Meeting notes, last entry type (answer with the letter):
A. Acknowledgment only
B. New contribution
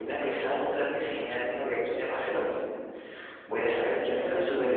A